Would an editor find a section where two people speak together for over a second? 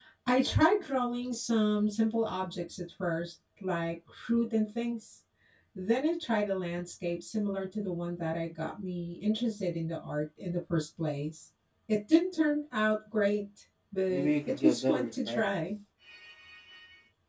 Yes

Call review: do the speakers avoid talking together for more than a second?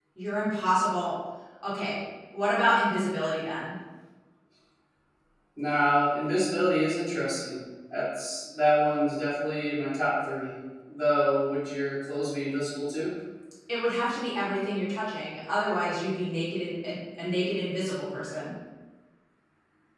Yes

